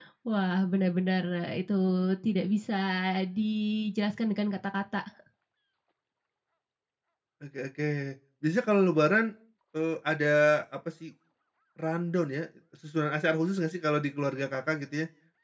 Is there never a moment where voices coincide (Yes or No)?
Yes